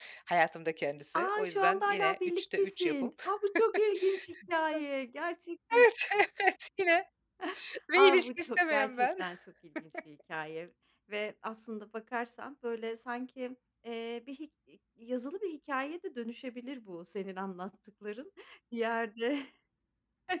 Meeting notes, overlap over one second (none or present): present